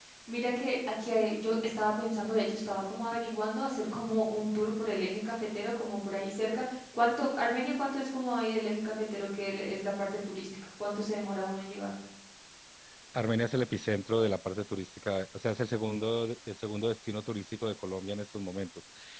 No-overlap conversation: Yes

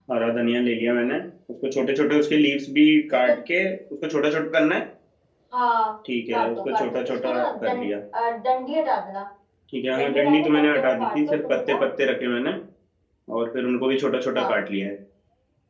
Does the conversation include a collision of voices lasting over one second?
Yes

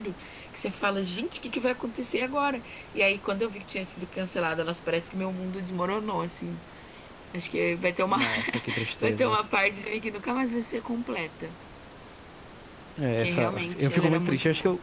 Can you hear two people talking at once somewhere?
Yes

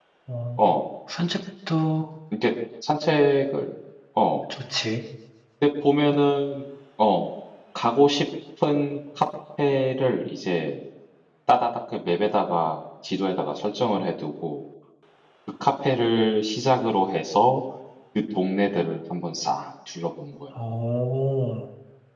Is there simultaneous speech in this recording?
No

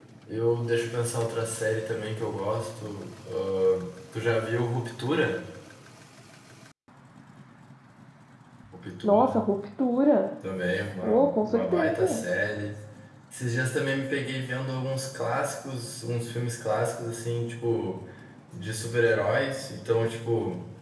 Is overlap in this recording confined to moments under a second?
No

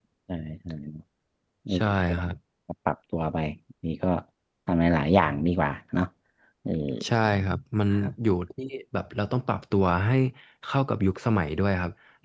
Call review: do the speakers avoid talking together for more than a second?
Yes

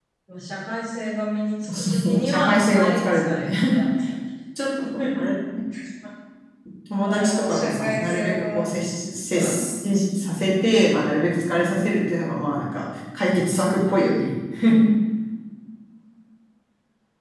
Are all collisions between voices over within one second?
No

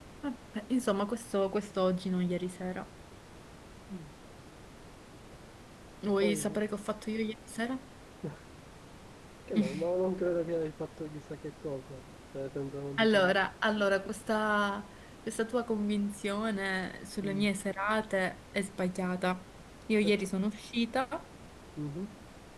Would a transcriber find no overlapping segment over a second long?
Yes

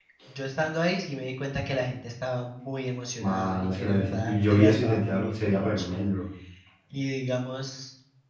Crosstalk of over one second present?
Yes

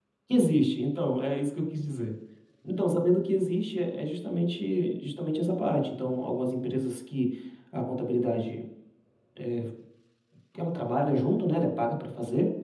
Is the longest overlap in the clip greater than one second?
No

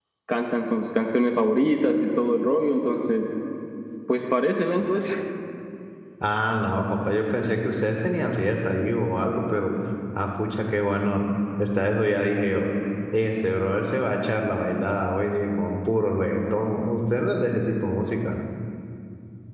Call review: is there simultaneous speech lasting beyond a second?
No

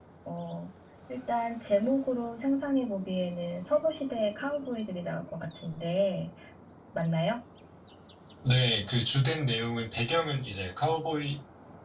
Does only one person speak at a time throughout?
Yes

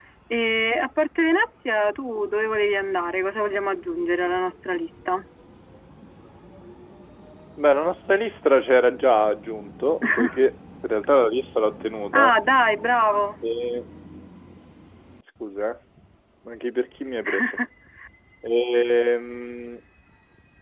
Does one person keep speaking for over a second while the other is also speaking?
No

